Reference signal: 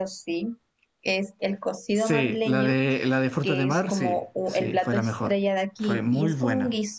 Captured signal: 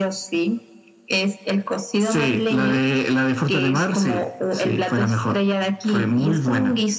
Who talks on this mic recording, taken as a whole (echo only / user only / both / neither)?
echo only